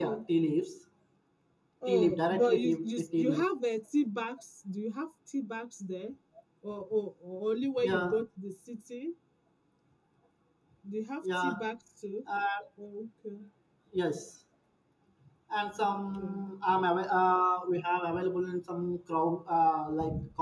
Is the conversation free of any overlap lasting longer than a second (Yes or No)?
No